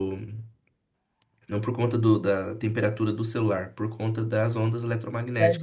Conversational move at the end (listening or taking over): taking over